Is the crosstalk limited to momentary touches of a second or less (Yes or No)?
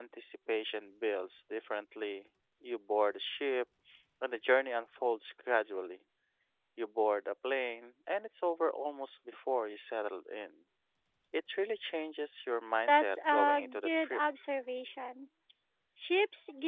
No